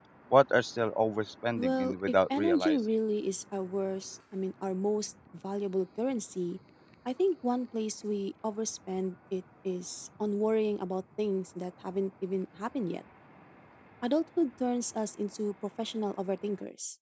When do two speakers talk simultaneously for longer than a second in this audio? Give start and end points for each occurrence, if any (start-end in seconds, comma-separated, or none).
1.6-2.8